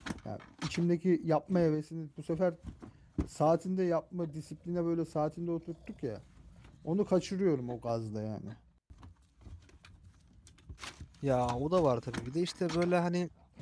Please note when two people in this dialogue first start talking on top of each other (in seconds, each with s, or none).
none